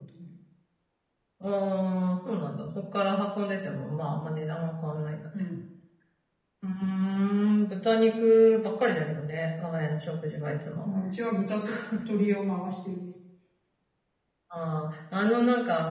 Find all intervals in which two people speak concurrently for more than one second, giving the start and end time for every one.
none

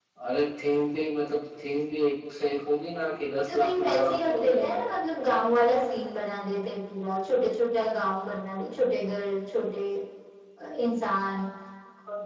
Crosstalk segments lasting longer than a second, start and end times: 3.5-4.8

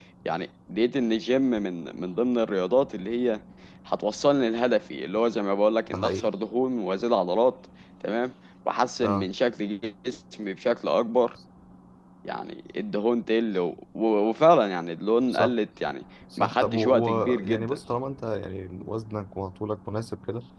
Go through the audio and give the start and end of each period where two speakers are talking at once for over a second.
16.4-17.8

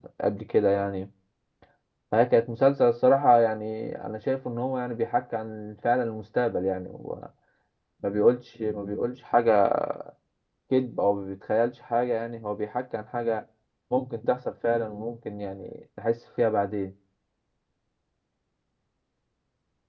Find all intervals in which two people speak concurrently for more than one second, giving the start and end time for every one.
none

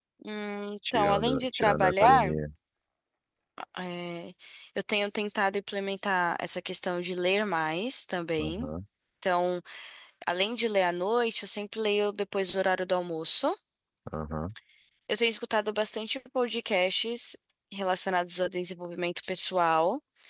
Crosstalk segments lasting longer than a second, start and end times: 0.9-2.4

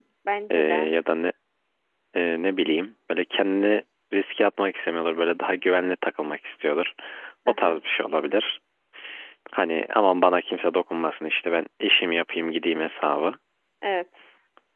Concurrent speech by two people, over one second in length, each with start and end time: none

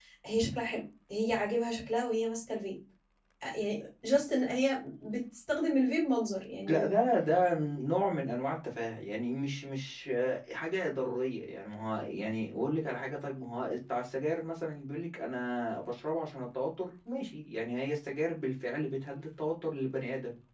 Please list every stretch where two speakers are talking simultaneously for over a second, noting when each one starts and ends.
none

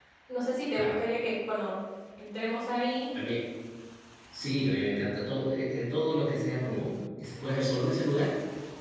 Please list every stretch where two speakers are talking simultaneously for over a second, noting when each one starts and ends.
none

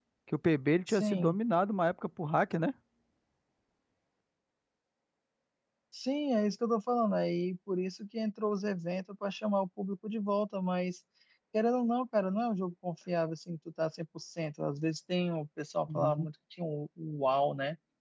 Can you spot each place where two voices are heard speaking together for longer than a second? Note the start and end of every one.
none

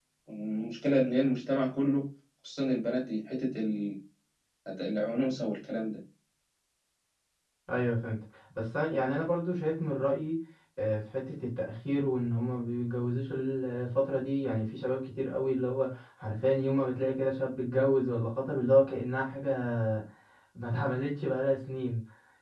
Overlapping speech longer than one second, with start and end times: none

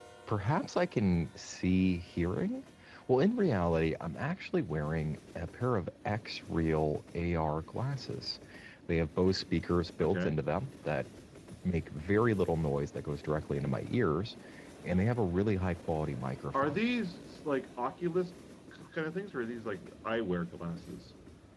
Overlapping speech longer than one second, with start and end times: none

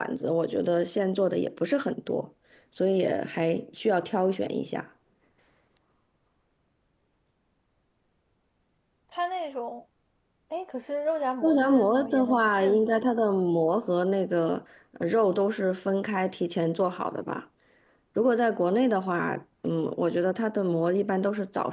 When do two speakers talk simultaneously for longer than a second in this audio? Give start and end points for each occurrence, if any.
11.4-13.1

